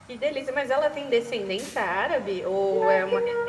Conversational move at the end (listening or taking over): taking over